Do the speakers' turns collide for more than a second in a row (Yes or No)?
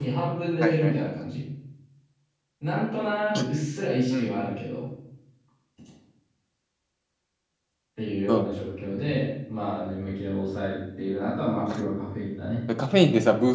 No